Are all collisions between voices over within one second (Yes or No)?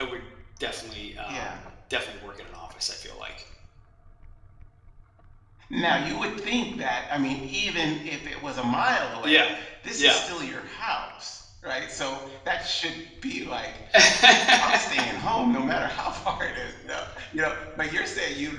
Yes